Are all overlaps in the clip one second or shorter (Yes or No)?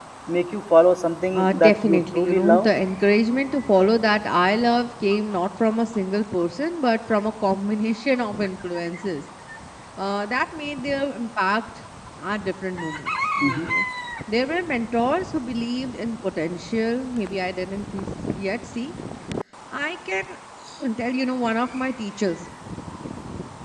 No